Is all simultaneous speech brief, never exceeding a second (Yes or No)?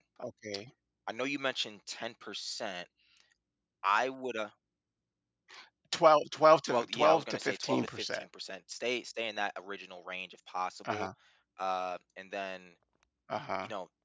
No